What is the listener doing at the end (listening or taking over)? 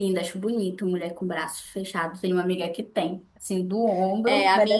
taking over